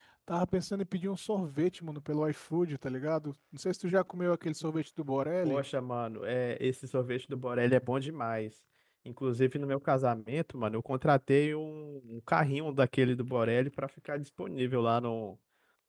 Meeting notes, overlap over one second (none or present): none